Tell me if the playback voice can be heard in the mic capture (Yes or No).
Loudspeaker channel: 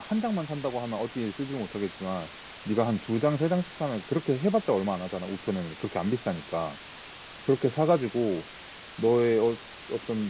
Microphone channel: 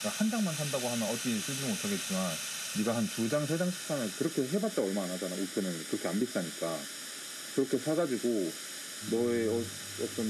Yes